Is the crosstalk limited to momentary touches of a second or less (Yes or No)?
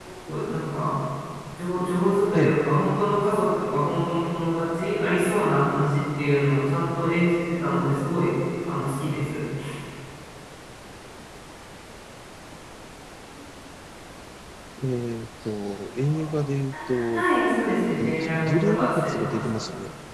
No